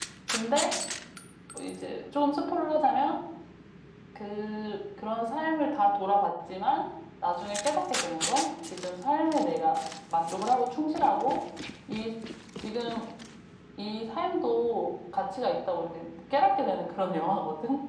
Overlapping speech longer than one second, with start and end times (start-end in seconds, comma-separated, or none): none